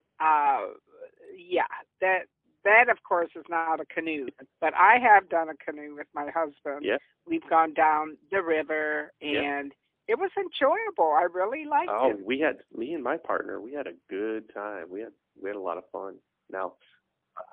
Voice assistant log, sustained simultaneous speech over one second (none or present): none